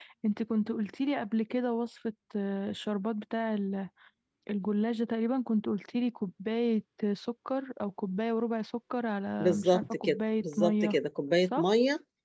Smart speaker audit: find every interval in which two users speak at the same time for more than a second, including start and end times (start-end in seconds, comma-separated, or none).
9.4-11.0